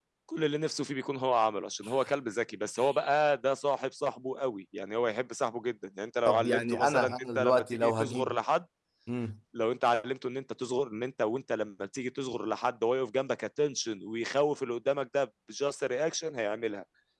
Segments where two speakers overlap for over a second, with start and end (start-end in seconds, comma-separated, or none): 6.3-8.3